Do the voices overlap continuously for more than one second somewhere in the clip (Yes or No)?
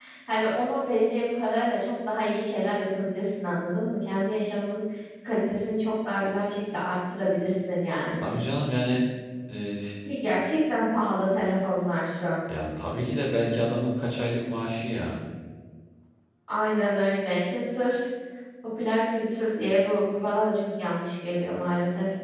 No